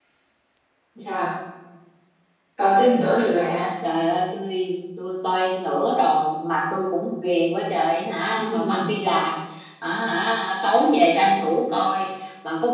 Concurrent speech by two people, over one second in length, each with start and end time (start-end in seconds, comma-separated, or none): none